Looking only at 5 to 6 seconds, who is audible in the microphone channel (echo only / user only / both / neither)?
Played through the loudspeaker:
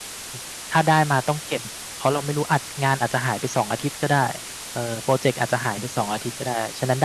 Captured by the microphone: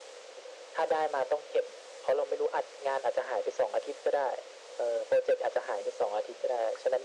echo only